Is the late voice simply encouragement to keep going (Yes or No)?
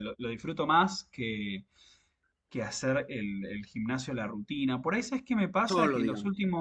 Yes